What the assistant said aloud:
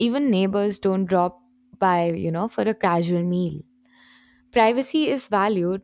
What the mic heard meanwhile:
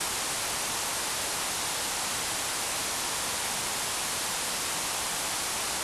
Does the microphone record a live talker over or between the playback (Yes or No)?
No